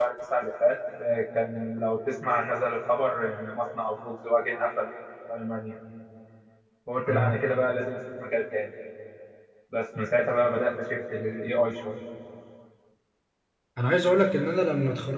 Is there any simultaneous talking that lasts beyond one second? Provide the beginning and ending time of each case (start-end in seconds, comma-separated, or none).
none